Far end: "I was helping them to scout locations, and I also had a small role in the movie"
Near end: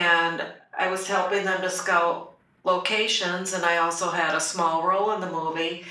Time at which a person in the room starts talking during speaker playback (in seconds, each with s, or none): none